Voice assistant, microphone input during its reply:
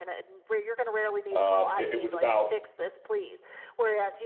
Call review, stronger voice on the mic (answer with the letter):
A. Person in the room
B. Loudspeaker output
A